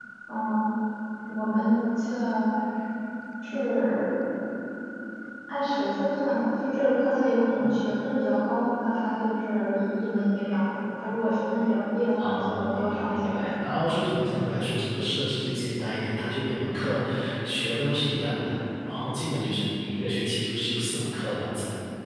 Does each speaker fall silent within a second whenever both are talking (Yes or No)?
No